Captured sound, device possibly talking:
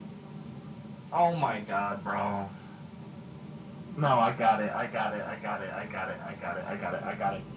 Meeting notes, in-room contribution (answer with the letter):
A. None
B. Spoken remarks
A